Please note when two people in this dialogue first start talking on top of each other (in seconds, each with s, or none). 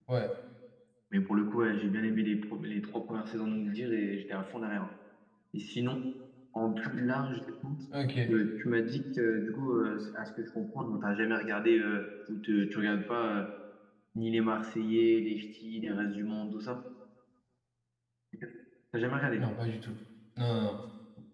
none